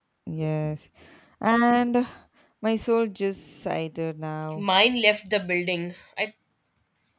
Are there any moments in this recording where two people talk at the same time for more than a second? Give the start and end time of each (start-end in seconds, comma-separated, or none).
none